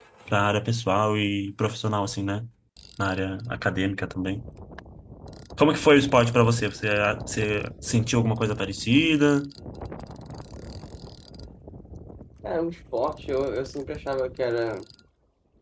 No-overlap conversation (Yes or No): Yes